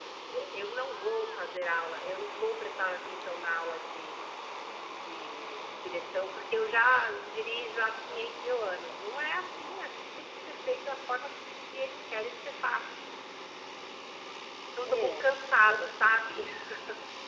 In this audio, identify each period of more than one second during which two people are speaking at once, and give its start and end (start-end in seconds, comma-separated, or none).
14.8-16.4